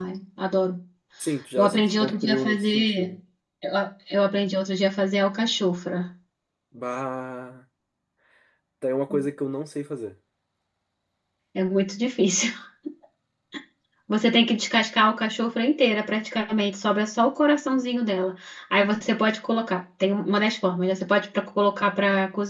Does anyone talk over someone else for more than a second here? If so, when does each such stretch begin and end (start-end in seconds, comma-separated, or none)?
1.6-3.1